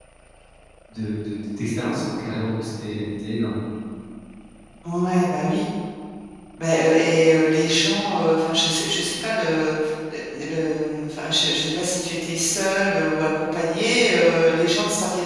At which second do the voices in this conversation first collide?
none

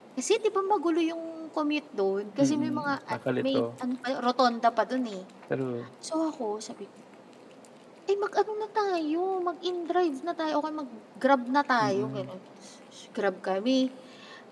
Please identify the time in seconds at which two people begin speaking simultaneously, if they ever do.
2.4 s

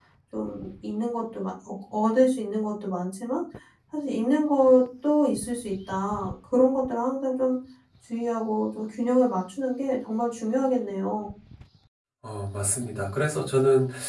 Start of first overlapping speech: none

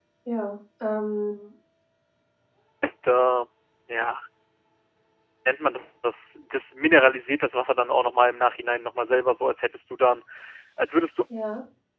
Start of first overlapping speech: none

